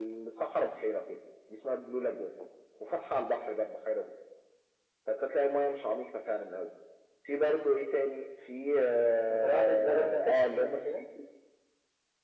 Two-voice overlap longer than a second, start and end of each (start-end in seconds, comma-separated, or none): 9.3-10.9